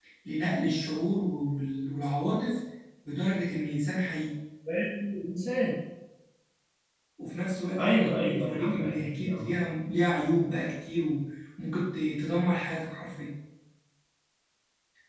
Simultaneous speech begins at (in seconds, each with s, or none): 7.8 s